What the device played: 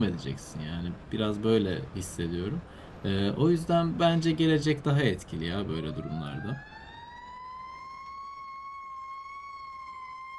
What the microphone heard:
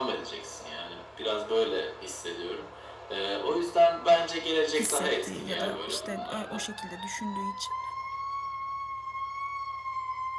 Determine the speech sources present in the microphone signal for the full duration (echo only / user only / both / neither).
both